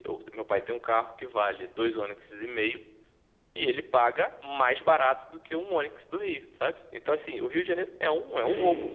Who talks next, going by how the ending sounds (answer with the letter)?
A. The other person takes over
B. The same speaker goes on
A